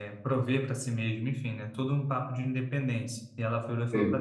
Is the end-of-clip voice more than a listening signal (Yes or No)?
No